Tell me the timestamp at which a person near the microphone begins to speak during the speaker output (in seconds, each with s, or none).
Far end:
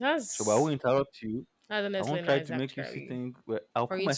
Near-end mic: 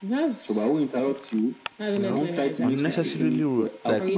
1.9 s